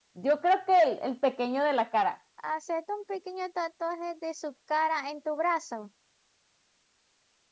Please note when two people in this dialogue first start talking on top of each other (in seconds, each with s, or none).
none